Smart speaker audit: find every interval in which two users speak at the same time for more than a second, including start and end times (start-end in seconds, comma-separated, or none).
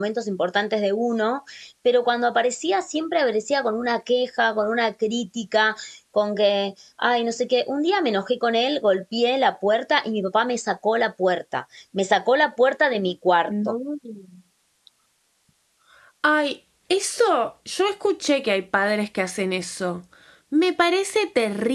none